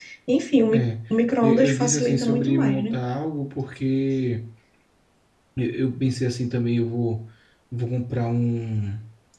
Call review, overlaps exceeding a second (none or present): present